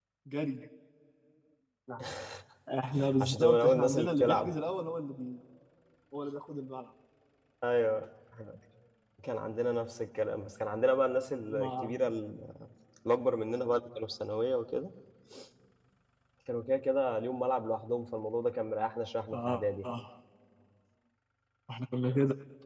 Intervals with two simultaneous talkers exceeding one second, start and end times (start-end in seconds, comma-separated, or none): 3.2-4.5